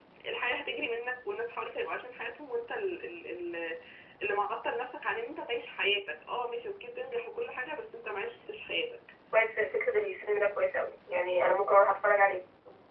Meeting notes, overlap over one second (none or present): none